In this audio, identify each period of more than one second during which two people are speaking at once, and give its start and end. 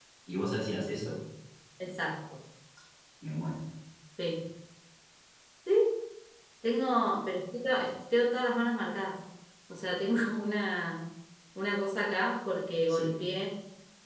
none

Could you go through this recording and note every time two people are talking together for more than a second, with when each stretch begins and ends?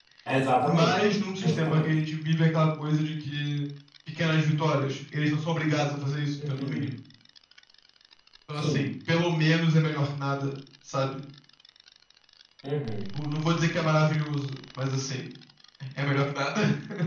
0.6-1.9

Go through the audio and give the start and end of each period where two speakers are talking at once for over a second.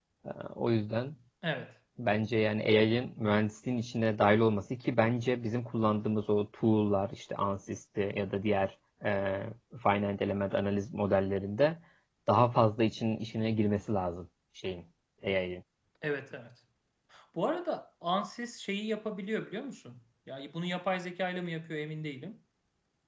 none

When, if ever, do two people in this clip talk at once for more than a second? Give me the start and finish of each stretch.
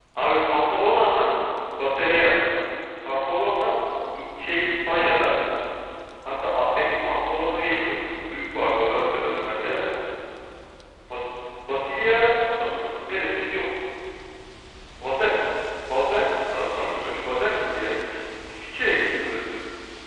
none

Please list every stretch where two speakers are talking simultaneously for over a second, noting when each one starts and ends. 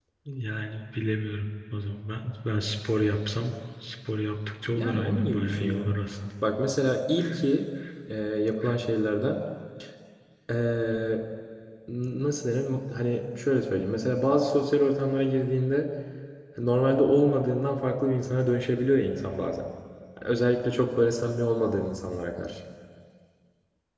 4.7-5.9

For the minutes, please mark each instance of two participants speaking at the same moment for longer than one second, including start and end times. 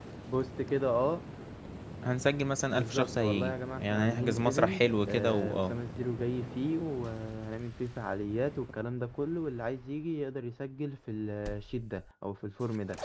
2.7-5.7

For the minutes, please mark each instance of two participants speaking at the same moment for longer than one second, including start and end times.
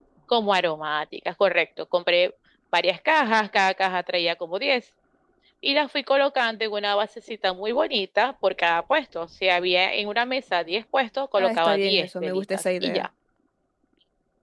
11.4-13.1

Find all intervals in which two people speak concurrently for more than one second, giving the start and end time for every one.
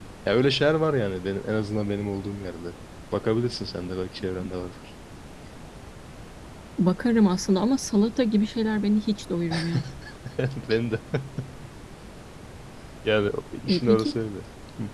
none

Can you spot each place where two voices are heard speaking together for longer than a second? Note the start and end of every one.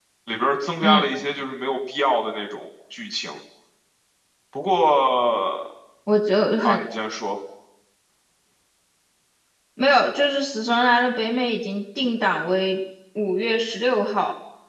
none

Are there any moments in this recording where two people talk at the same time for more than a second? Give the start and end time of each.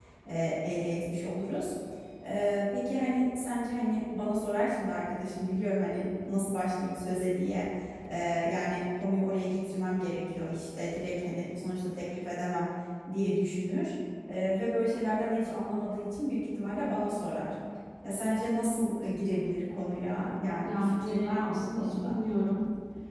20.6-22.1

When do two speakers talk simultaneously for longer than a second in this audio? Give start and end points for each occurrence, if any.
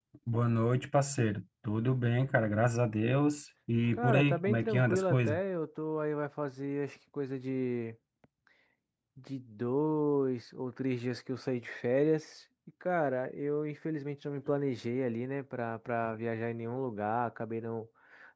3.9-5.4

